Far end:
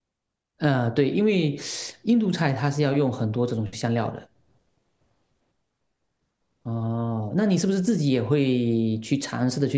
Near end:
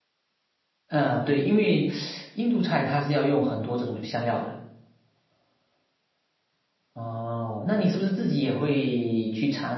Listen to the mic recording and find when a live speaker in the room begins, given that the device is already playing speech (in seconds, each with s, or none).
none